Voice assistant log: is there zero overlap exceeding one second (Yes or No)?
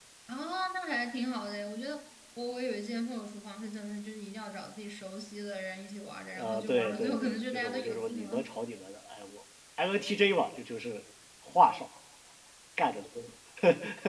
No